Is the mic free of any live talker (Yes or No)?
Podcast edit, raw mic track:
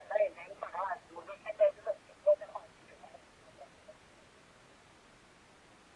Yes